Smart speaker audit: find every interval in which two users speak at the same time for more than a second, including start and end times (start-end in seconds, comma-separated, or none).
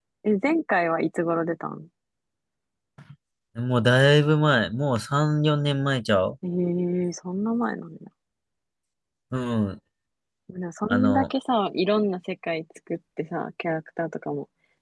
none